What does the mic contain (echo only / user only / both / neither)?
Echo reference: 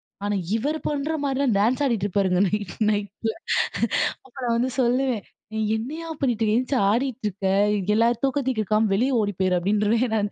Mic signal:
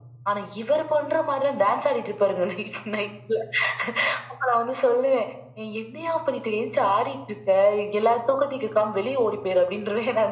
echo only